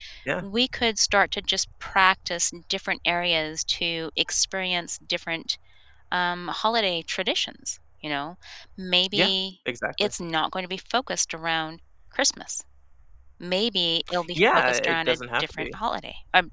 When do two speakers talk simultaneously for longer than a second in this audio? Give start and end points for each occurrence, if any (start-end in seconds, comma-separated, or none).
14.3-15.8